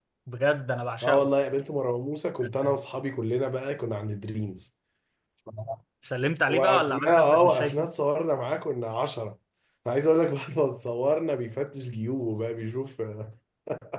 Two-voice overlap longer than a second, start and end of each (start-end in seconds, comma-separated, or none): 6.5-7.9